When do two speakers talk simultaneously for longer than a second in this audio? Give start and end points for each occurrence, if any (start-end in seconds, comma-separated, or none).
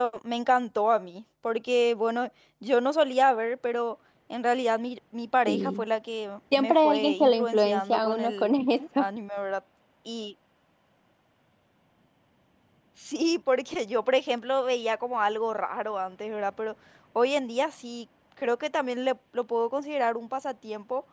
6.6-8.5